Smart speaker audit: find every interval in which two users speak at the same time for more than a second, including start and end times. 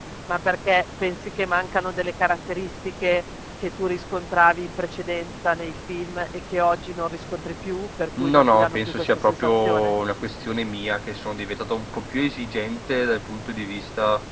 8.2-9.9

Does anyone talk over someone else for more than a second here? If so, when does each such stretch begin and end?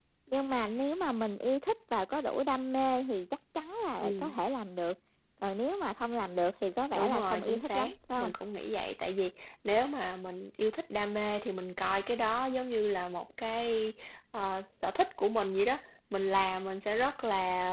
7.0-8.3

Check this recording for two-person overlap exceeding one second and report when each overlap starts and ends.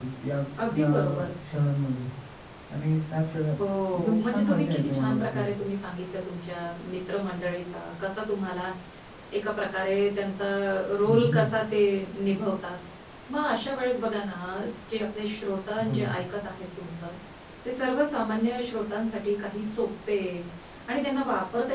3.9-5.4

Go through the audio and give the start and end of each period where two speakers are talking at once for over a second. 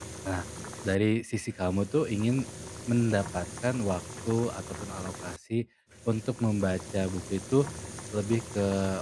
none

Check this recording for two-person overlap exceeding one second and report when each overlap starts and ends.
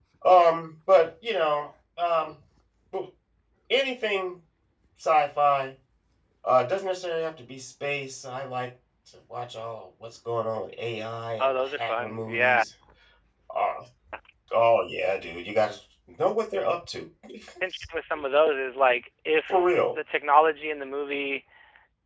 11.4-12.6

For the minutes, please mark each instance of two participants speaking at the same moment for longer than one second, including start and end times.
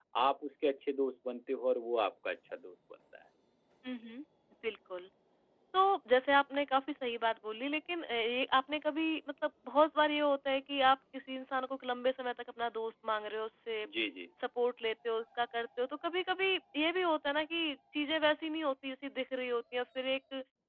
none

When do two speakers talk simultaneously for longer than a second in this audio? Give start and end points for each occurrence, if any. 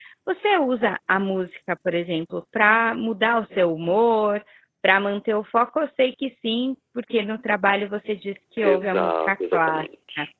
8.6-9.8

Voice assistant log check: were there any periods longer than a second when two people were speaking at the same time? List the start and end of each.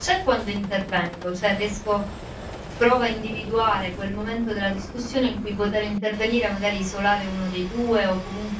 none

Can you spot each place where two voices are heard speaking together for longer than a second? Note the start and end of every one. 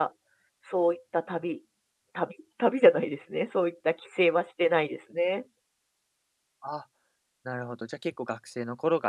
none

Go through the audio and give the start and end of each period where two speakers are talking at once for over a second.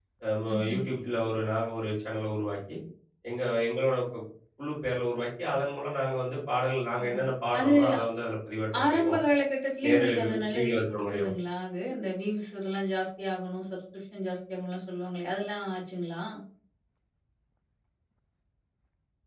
9.9-11.3

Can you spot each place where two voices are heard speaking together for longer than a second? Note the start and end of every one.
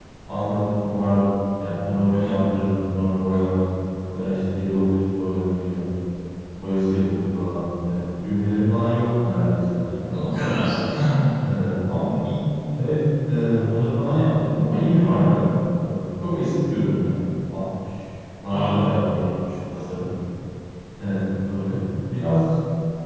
none

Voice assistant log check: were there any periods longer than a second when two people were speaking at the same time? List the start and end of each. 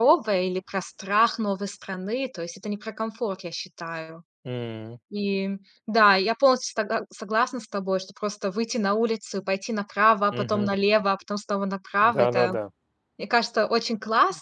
none

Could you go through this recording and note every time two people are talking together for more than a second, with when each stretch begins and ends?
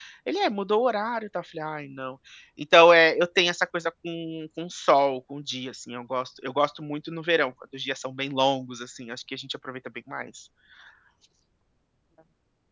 none

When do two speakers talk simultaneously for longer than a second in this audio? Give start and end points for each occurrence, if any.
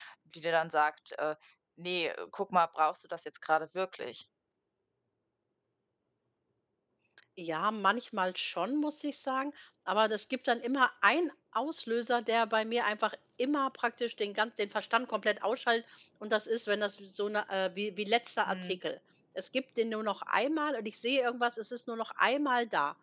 none

